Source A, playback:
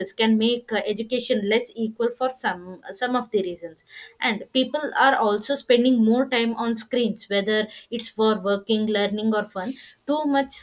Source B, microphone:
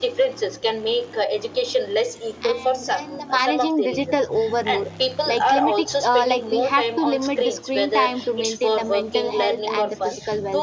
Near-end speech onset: 2.4 s

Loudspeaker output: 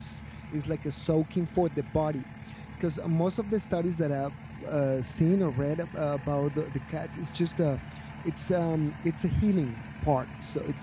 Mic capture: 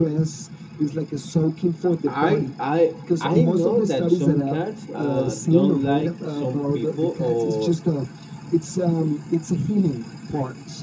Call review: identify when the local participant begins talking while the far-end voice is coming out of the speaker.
2.1 s

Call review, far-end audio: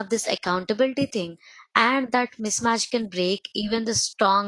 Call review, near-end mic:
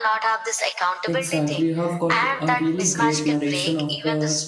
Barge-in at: 1.0 s

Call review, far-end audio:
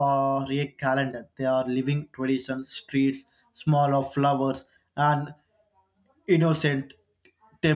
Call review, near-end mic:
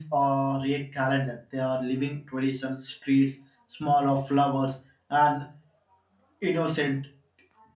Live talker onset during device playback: none

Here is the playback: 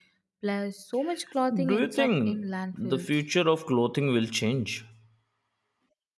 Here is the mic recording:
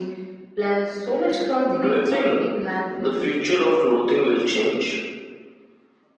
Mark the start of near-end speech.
none

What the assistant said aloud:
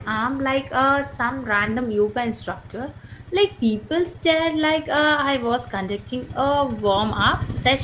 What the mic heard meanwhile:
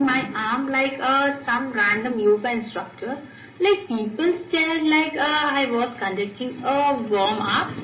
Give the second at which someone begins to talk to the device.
none

